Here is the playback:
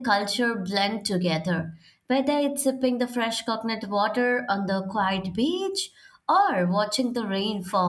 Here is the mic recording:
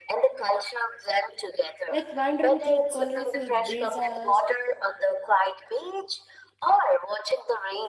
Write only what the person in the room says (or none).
like wandering through colorful brisas